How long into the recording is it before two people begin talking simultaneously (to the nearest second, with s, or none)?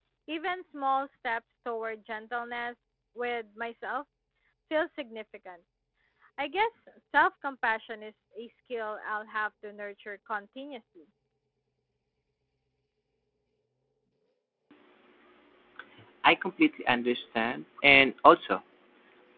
none